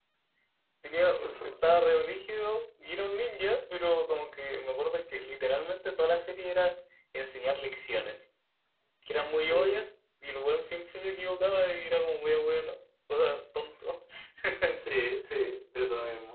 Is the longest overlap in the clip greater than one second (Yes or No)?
No